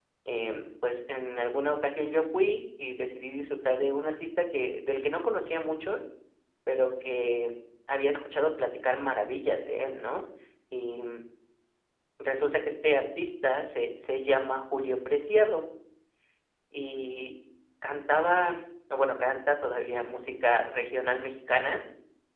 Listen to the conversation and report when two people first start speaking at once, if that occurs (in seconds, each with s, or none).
none